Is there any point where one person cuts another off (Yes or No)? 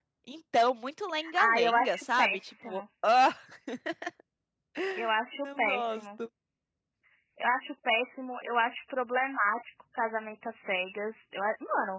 Yes